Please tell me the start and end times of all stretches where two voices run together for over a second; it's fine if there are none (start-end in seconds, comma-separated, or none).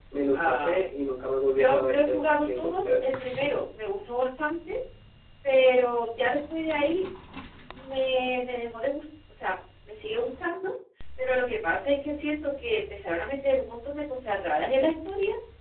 1.5-3.0